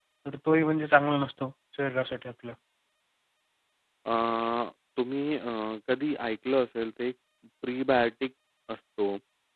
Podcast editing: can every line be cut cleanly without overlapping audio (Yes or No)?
Yes